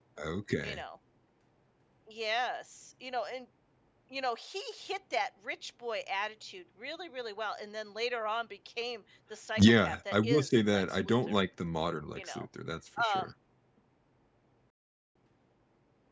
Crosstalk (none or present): present